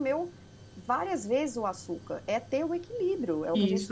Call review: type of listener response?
taking over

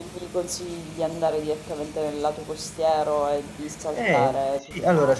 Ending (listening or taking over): taking over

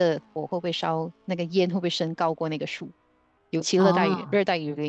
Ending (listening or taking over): listening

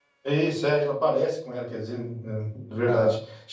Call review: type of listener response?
taking over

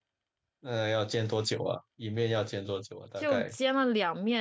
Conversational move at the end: taking over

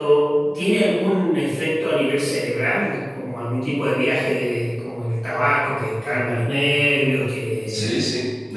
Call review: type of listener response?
taking over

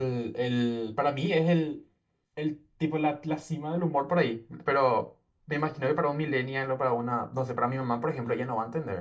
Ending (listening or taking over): taking over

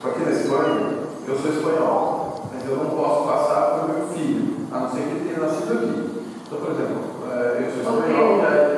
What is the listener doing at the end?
taking over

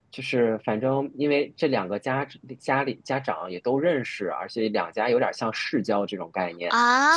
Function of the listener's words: listening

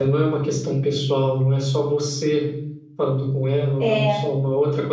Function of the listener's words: listening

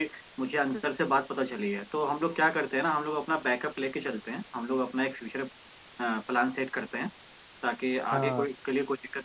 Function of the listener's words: listening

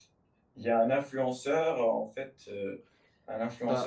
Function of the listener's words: listening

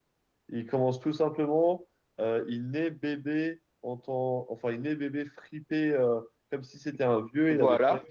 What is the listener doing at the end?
listening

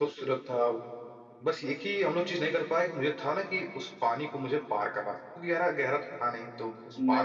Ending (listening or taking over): listening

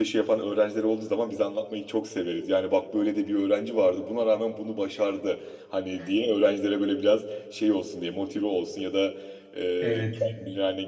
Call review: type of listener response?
listening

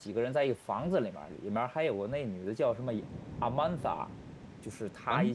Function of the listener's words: listening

